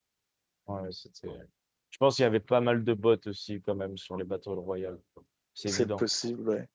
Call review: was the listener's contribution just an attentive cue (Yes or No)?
No